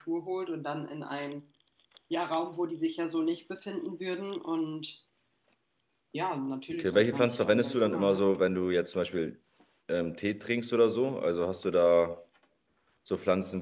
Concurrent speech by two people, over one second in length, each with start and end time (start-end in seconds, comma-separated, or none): 6.8-8.2